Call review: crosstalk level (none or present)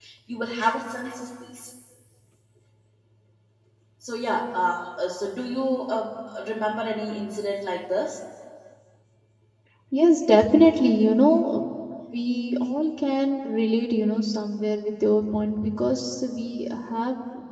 none